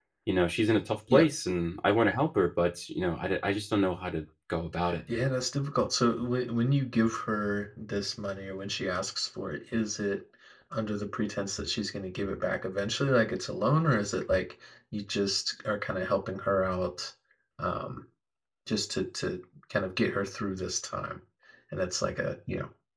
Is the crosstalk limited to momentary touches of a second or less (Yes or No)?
Yes